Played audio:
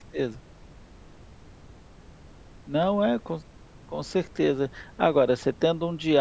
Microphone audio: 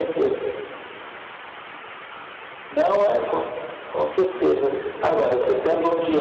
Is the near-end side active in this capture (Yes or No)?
No